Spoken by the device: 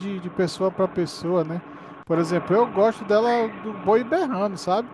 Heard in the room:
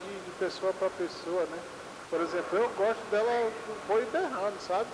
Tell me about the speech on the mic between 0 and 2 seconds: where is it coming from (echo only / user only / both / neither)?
echo only